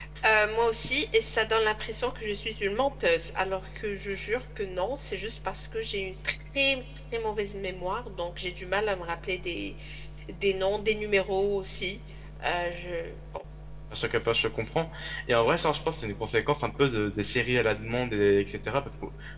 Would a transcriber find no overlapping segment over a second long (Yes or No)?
Yes